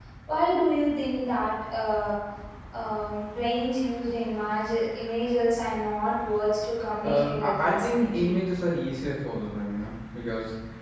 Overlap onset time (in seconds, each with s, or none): 7.0 s